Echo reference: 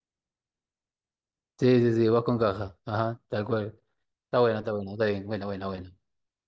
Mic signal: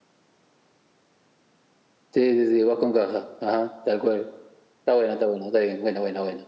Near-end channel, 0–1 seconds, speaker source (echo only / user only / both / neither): neither